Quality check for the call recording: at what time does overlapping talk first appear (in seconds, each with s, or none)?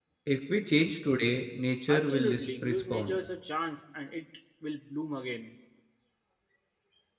1.9 s